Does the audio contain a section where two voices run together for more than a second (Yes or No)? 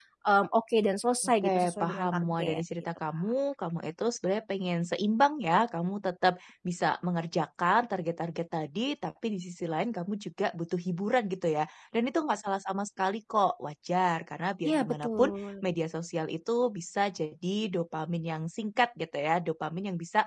Yes